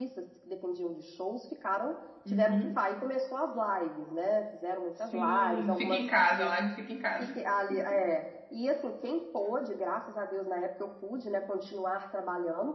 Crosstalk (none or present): present